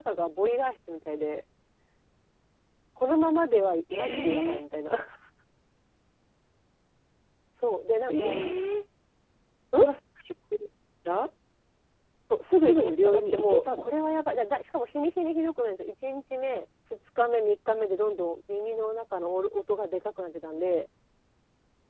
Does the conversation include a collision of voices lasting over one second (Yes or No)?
Yes